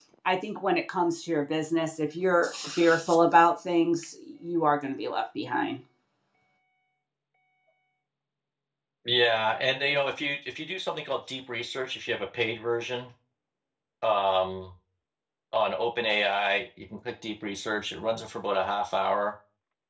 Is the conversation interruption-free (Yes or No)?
Yes